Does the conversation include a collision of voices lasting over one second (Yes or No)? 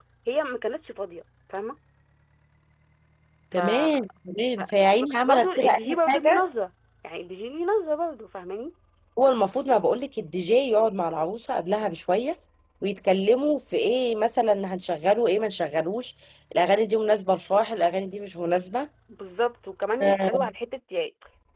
Yes